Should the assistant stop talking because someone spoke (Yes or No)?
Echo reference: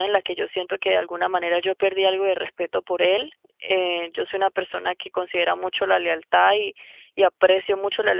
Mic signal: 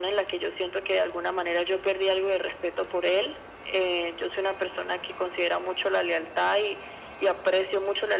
No